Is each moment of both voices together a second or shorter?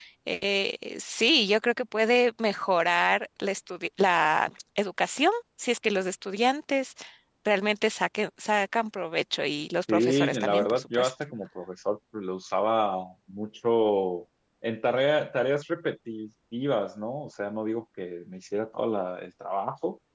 No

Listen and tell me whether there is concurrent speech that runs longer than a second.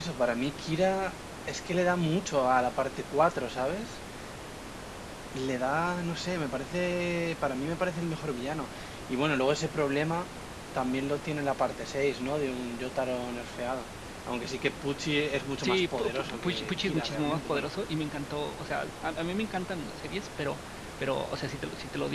Yes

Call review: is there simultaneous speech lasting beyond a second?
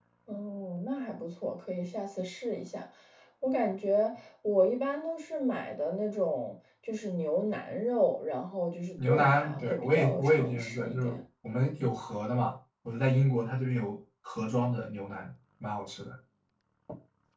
Yes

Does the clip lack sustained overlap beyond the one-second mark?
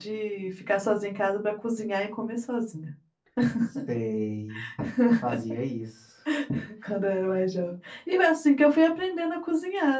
Yes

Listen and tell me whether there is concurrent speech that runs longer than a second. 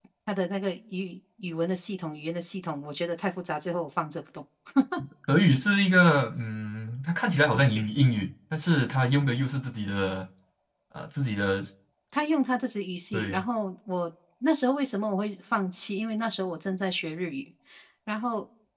No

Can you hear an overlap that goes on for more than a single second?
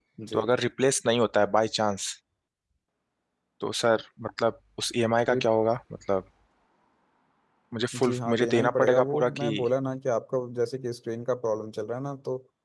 Yes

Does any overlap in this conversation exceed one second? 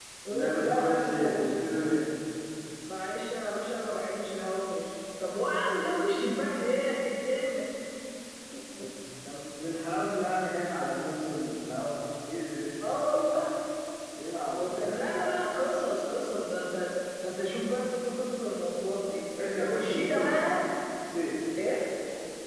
Yes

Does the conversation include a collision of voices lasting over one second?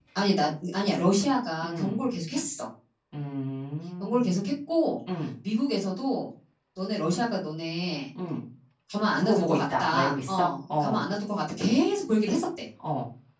Yes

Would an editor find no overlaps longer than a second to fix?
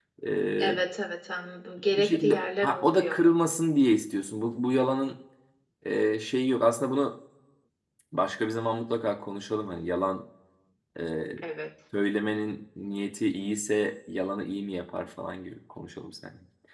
No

